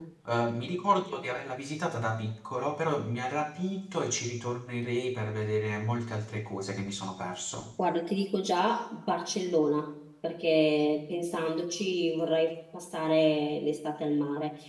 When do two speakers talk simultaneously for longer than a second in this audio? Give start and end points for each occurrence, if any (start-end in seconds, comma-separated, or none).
none